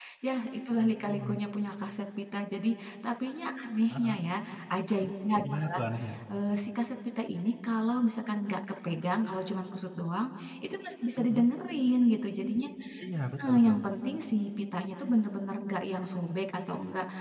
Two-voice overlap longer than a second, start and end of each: none

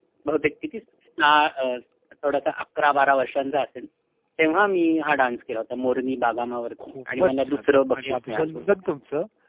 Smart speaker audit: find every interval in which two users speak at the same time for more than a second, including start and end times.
6.9-8.6

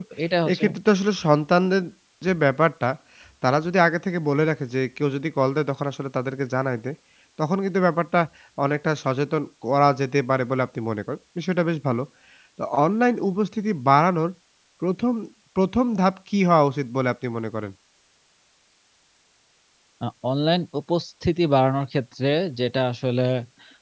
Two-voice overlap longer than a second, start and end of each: none

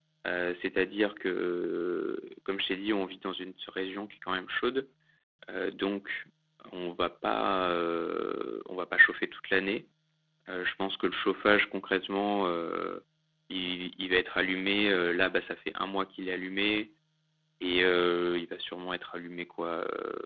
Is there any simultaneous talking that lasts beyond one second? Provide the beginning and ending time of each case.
none

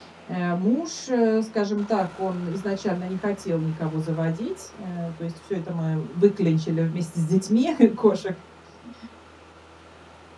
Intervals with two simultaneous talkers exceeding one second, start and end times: none

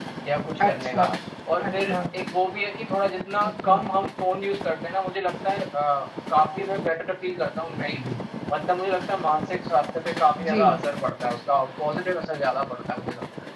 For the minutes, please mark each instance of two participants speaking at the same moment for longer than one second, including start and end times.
none

